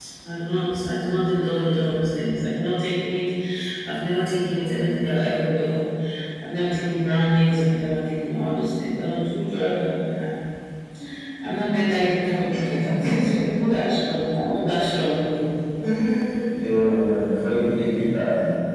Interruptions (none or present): none